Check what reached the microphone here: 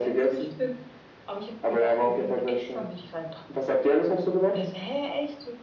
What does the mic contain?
both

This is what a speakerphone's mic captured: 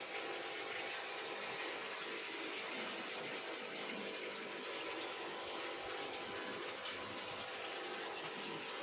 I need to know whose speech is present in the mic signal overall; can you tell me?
neither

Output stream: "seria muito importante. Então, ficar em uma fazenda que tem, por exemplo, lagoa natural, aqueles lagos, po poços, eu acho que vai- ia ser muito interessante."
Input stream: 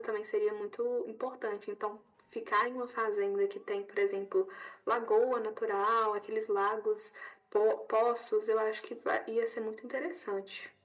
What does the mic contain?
echo only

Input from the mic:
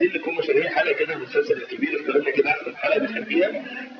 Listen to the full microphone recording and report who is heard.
both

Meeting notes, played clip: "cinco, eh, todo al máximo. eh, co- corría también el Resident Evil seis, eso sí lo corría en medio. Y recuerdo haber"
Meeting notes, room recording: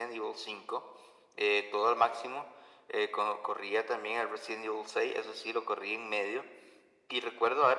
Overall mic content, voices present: echo only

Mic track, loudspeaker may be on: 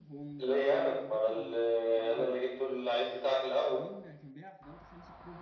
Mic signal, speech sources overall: both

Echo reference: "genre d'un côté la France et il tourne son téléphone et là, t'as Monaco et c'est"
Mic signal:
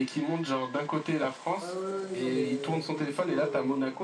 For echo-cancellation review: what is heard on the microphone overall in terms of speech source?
both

